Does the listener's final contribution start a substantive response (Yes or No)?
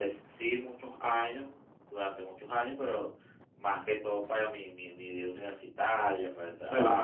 Yes